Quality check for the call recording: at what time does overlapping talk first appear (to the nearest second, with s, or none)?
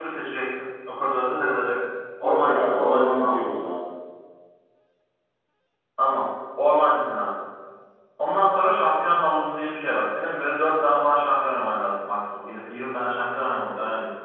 2 s